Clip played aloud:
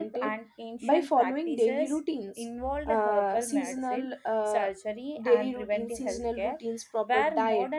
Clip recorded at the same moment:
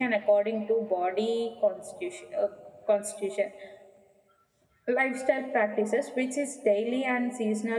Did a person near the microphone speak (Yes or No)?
Yes